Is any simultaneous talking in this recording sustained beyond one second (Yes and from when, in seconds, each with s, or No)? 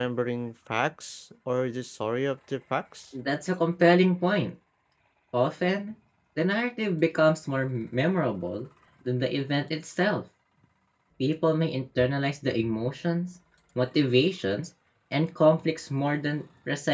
No